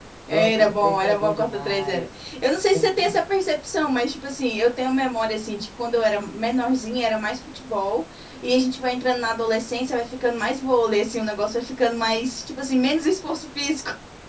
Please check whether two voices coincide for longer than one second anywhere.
Yes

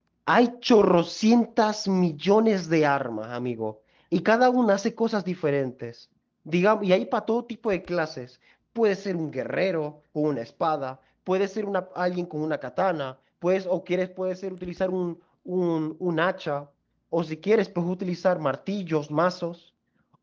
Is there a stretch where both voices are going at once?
No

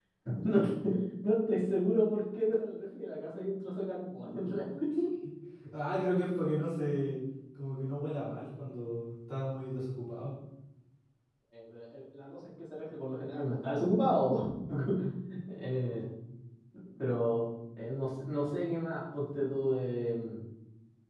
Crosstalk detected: No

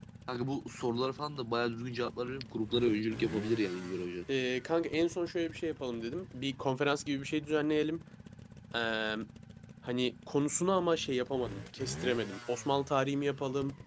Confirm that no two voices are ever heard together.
Yes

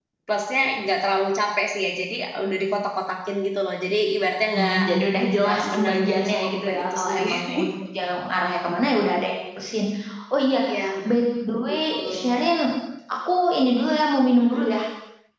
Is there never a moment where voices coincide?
No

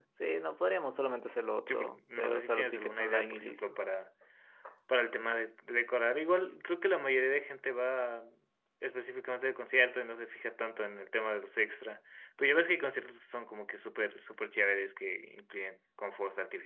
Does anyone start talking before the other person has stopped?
Yes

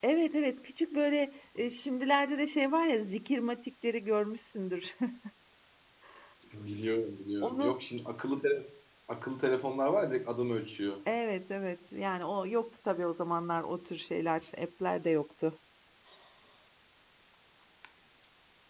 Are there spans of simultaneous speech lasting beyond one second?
No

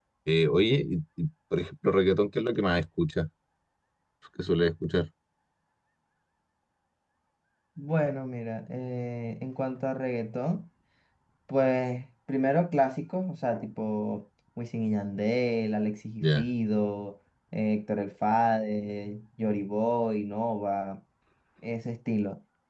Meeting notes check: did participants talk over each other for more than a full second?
No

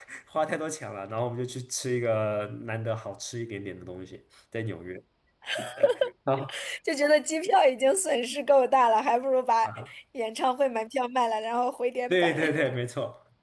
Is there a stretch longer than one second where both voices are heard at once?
No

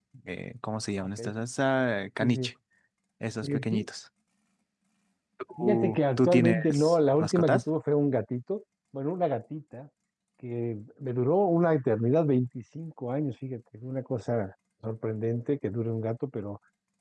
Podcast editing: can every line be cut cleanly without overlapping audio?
No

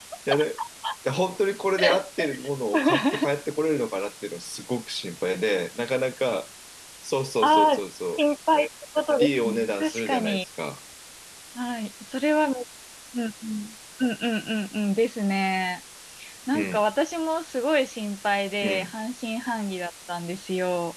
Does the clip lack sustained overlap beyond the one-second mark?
No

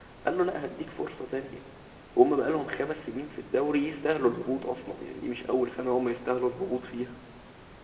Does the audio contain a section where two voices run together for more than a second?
No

